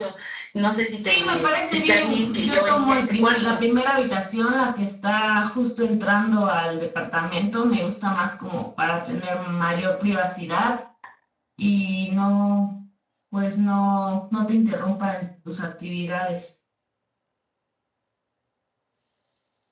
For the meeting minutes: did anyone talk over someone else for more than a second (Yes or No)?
Yes